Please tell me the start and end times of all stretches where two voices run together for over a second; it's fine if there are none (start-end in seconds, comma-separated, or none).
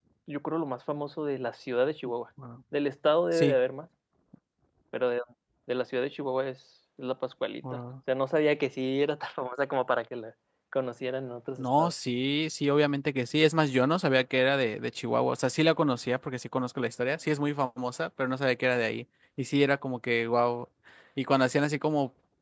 none